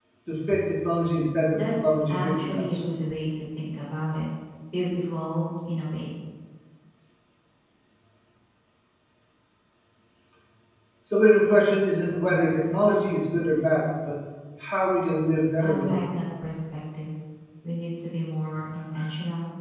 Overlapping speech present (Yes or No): Yes